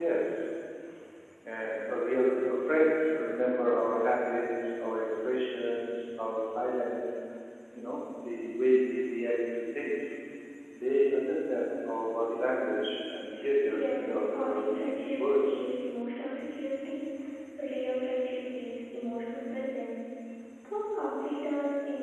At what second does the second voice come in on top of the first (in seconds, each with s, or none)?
14.0 s